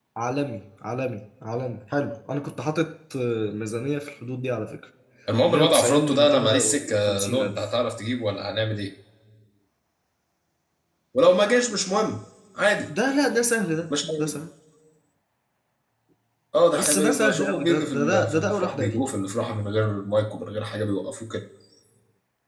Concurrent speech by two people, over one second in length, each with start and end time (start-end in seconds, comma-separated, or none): 5.5-7.6, 16.7-19.0